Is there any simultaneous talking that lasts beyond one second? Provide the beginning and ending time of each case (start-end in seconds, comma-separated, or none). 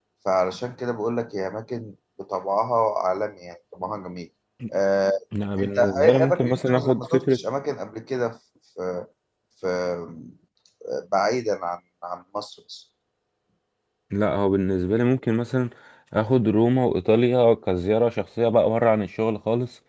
5.6-7.4